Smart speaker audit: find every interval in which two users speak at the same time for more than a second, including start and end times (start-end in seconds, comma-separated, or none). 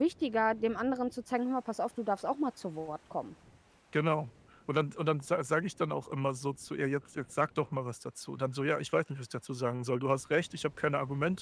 none